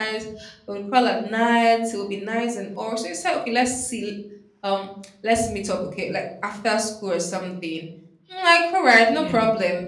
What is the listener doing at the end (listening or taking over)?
listening